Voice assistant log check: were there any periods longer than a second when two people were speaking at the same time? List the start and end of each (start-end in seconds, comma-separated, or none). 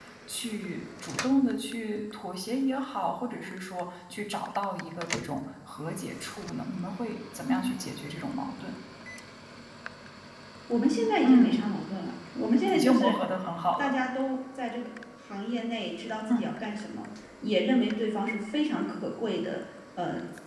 none